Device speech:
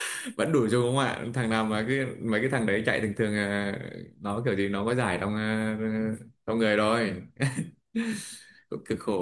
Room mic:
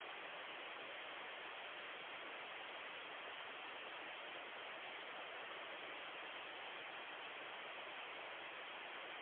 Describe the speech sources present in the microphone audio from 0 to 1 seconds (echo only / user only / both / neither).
neither